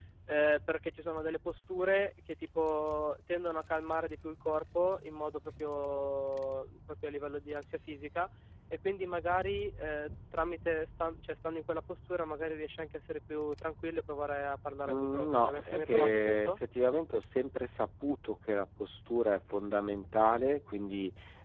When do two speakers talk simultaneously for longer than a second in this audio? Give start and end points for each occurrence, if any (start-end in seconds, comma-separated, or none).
14.8-16.6